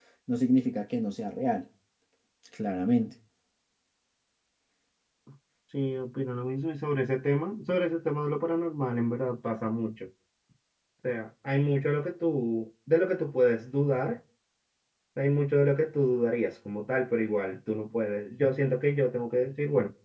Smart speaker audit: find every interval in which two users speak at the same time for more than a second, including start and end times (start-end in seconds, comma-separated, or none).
none